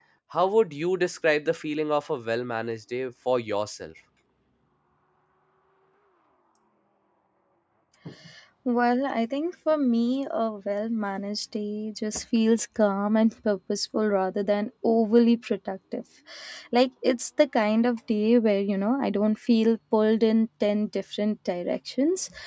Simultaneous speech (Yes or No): No